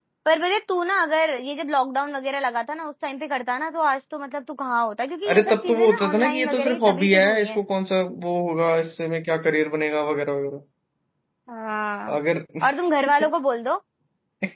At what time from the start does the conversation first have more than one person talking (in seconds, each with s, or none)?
5.3 s